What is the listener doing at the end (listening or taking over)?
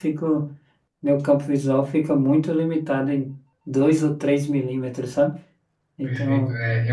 taking over